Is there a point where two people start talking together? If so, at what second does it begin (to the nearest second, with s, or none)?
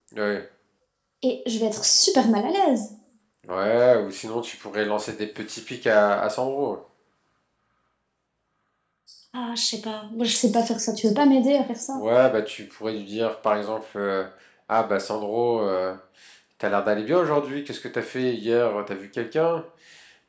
none